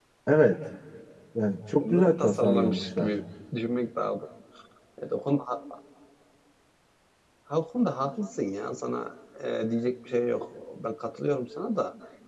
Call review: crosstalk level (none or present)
present